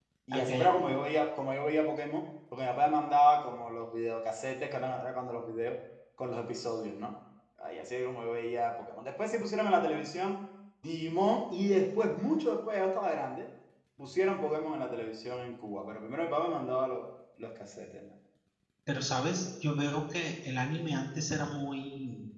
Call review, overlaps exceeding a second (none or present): none